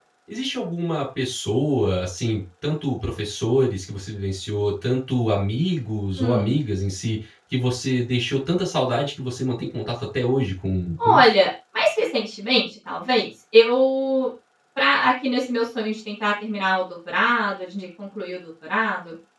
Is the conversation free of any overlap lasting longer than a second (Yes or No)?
Yes